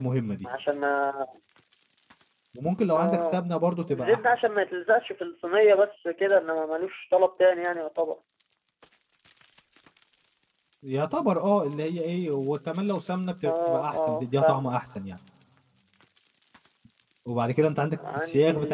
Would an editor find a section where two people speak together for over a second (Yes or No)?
Yes